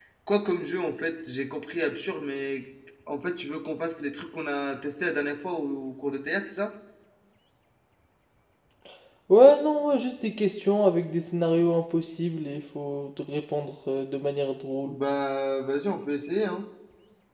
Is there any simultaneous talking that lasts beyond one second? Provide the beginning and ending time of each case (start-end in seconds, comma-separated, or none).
none